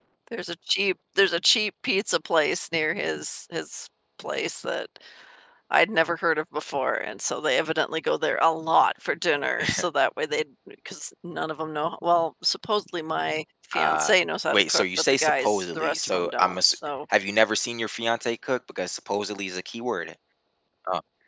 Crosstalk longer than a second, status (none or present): present